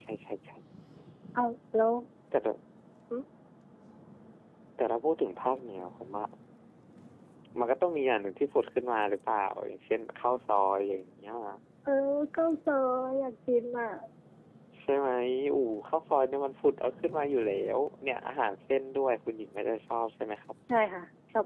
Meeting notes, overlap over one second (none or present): none